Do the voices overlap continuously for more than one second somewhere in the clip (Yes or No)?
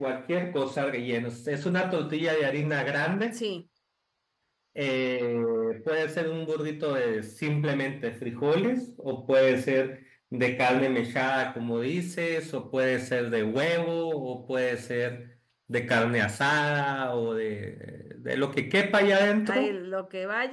No